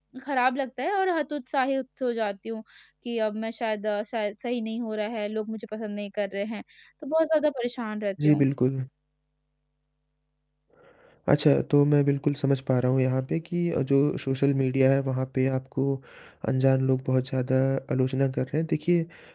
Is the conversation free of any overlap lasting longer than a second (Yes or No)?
Yes